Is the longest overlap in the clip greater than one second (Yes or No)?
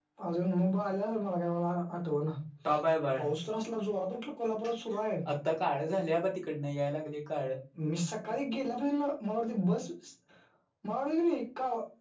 No